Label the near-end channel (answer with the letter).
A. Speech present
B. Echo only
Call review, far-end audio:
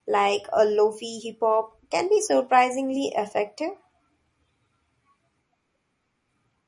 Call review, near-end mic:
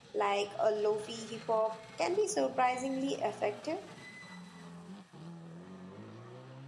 B